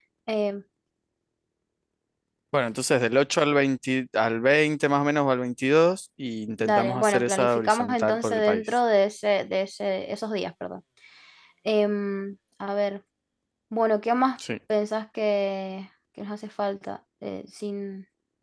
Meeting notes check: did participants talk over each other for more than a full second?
Yes, from 6.6 s

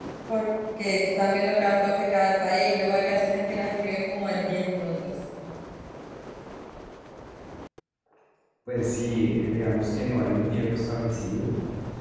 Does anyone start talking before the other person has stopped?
No

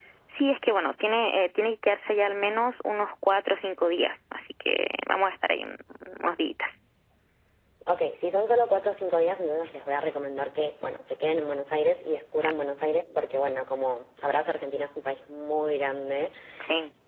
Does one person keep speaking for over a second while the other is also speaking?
No

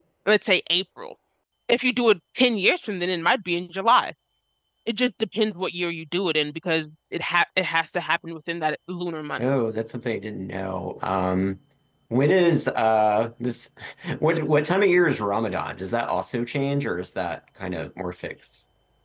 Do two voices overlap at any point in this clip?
No

